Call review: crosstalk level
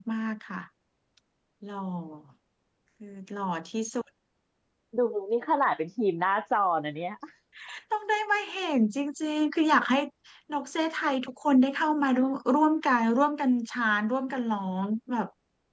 none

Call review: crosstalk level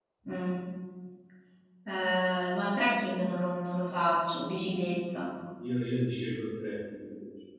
none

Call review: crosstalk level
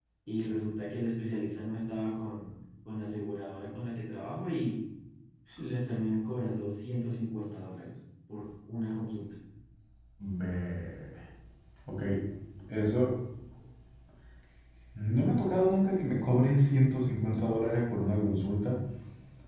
none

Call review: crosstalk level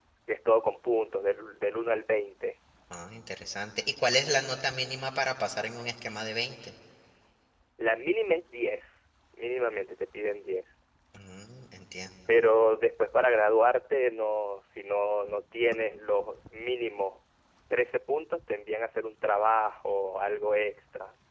none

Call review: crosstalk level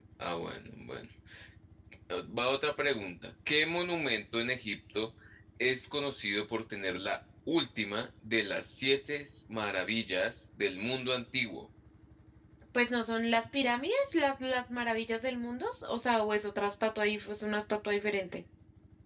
none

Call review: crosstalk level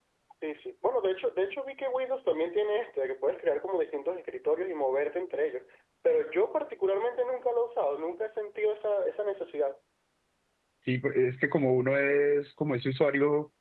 none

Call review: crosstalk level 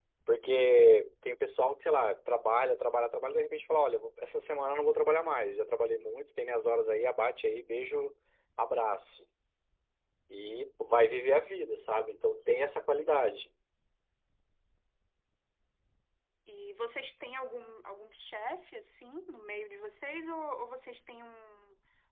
none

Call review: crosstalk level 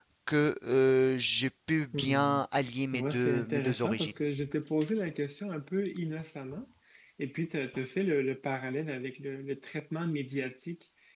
present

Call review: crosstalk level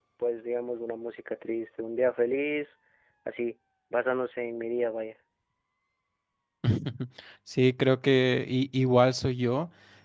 none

